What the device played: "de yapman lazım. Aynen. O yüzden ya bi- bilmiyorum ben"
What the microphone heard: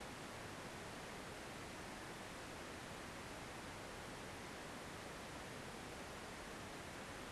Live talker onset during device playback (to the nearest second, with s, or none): none